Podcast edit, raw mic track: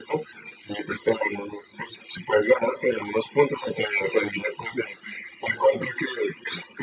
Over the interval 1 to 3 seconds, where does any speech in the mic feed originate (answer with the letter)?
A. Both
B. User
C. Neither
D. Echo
D